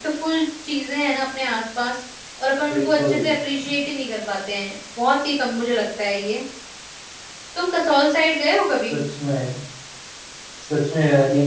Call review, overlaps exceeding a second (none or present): none